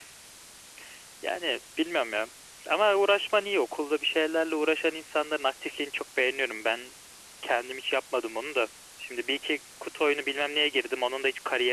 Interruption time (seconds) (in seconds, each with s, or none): none